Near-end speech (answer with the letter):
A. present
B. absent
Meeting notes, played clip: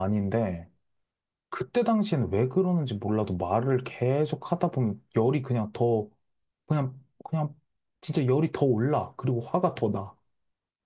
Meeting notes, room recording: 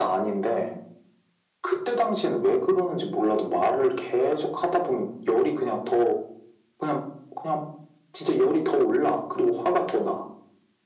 B